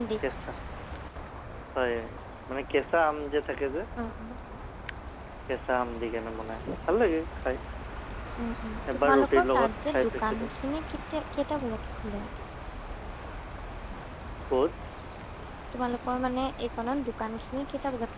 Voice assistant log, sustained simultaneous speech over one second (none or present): present